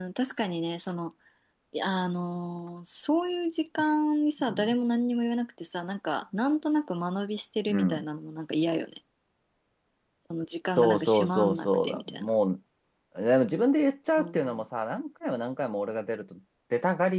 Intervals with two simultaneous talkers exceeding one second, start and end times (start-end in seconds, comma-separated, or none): 10.8-12.3